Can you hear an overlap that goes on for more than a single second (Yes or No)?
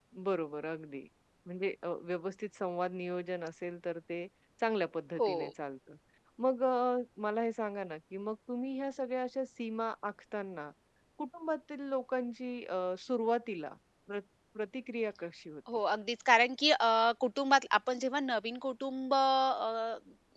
No